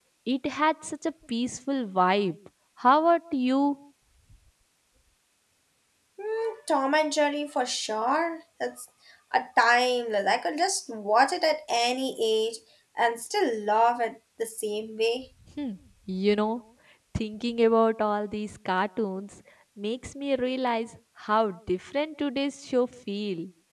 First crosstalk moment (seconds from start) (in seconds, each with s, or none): none